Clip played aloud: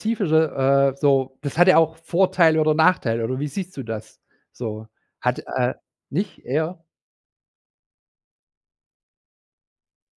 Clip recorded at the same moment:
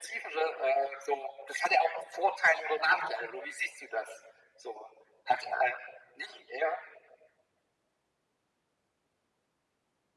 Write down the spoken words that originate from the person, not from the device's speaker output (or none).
none